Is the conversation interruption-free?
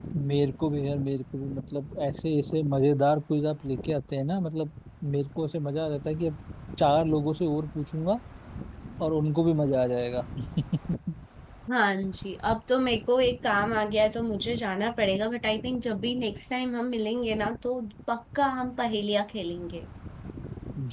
Yes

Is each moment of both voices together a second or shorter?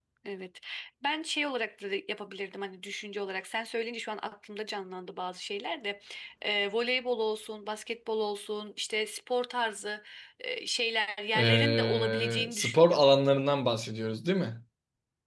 No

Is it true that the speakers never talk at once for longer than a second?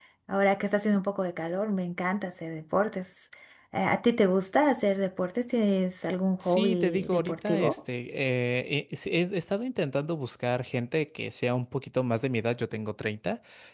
No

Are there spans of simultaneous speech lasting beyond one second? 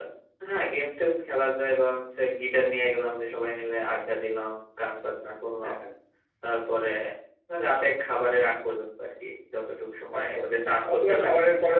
Yes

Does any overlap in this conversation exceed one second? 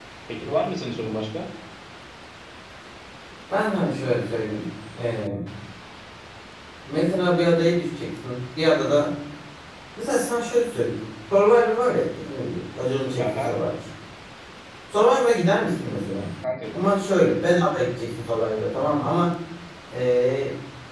No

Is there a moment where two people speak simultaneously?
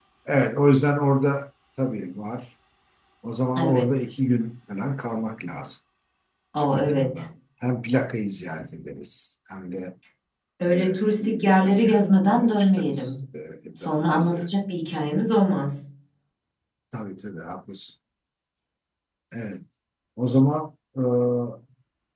Yes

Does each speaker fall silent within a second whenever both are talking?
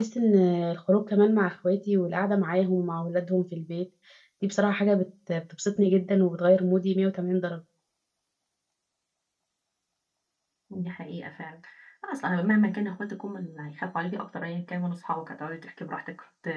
Yes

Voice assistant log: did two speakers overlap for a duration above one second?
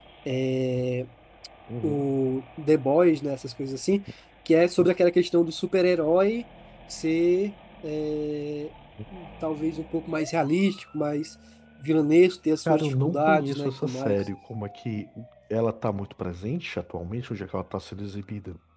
Yes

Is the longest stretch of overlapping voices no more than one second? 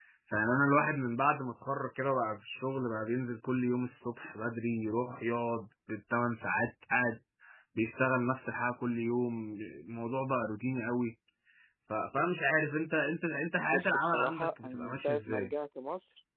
No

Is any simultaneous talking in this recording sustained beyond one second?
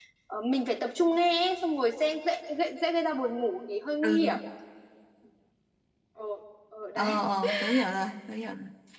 No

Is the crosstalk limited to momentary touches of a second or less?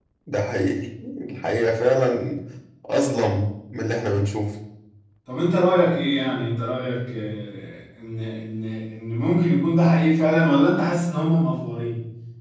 Yes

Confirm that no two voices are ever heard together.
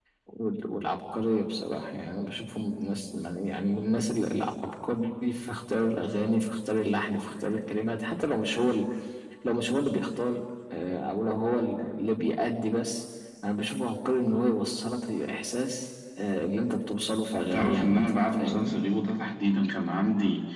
No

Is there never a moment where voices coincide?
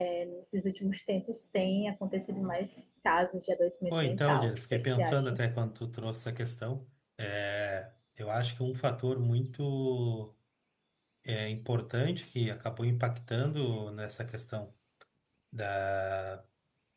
No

